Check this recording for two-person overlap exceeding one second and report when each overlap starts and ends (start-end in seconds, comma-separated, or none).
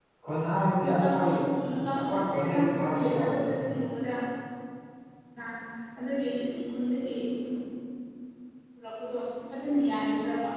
2.0-3.4